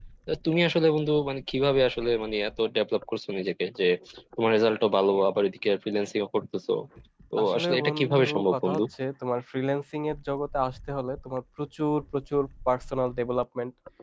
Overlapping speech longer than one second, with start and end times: 7.4-8.8

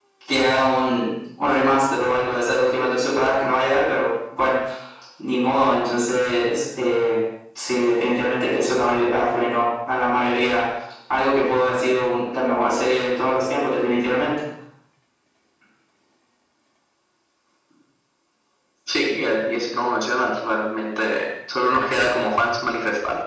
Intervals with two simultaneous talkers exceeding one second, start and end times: none

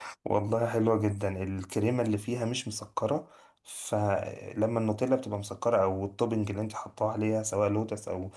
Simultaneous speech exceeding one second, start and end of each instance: none

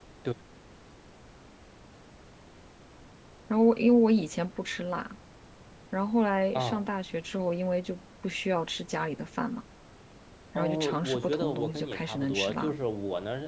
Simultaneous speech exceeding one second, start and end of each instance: 10.6-12.7

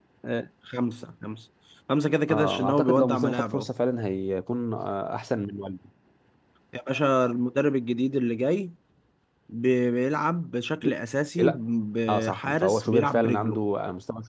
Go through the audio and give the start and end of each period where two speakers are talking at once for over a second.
2.3-3.7, 12.1-13.6

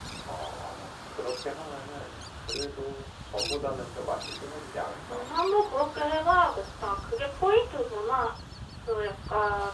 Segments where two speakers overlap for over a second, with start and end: none

